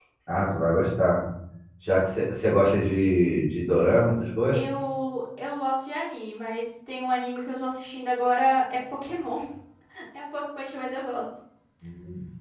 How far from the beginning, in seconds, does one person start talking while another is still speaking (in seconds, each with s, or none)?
none